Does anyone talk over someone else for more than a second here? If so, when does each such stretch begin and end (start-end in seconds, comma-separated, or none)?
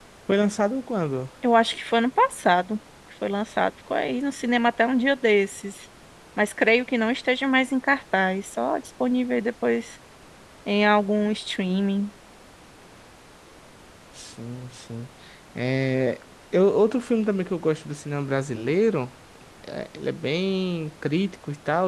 none